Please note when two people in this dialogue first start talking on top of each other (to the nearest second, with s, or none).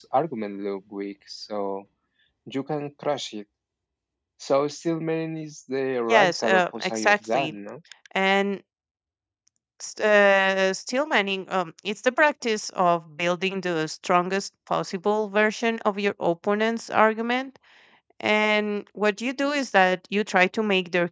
6 s